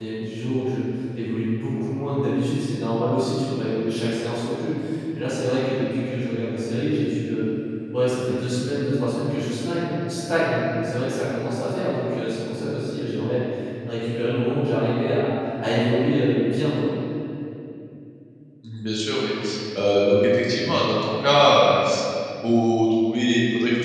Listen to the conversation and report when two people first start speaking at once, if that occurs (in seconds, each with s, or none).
none